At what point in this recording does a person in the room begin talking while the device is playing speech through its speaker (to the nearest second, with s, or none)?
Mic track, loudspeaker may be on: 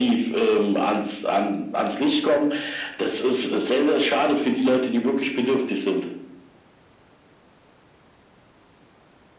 none